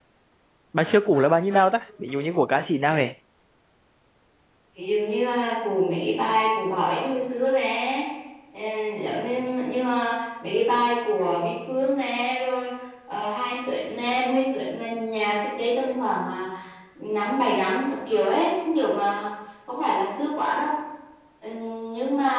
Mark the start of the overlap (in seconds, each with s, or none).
none